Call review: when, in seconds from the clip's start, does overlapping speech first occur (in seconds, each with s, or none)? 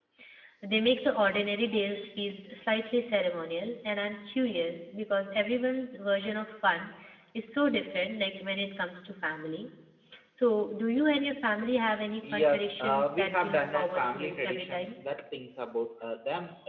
12.2 s